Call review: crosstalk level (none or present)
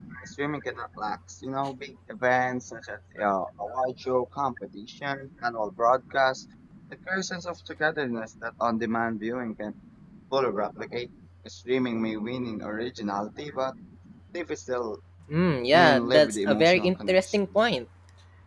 present